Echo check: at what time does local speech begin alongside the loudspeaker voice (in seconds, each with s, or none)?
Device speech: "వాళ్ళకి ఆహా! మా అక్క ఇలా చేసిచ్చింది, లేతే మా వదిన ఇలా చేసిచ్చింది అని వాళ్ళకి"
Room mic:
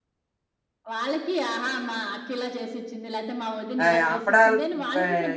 3.8 s